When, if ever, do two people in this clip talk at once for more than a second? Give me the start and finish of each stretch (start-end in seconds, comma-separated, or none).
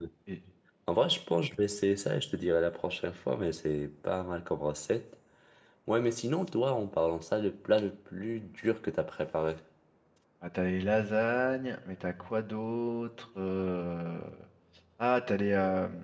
none